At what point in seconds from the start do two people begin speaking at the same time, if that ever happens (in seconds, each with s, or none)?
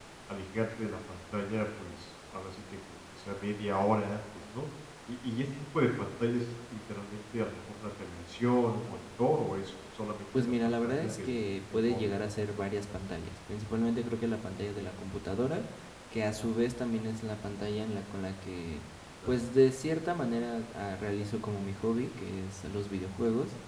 10.3 s